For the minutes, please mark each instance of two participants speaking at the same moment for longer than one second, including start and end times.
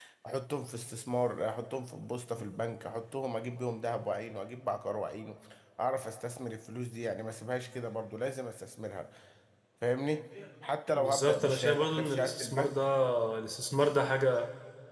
10.9-12.8

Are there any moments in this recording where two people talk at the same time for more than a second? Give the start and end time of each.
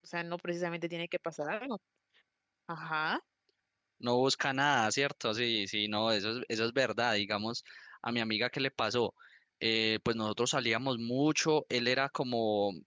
none

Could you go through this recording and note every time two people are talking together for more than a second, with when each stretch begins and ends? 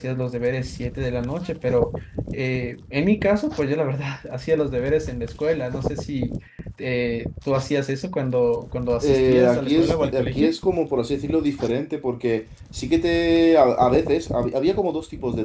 9.0-10.6

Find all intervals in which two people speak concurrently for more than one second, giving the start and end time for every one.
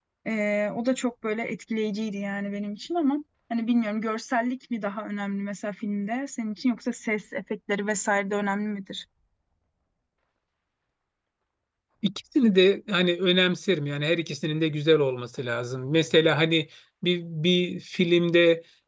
none

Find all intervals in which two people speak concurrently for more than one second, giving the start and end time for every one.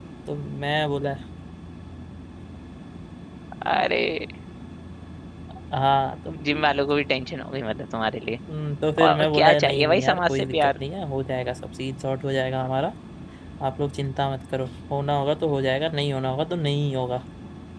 9.1-10.7

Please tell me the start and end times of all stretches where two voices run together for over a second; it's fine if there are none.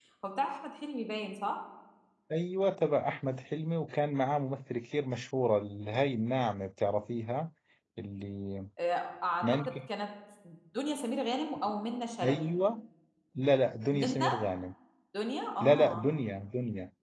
none

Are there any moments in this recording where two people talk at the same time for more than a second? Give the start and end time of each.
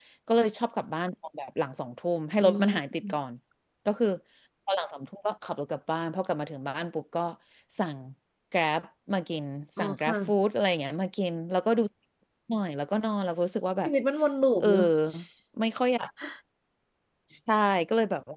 none

